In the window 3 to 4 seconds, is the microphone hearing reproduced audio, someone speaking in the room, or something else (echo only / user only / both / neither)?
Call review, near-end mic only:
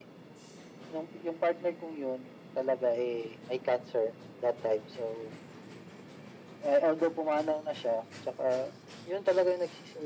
echo only